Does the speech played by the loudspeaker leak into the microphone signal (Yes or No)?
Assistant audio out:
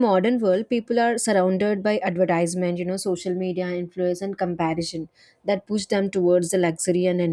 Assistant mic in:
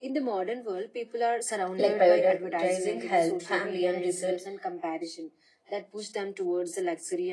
Yes